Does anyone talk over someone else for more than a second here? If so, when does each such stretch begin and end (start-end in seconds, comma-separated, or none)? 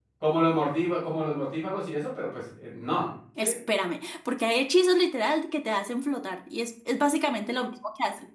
none